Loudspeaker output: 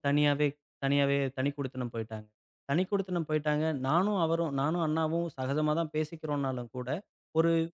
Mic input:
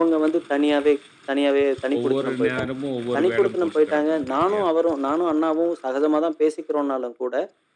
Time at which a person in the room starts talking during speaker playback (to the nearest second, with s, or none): 2 s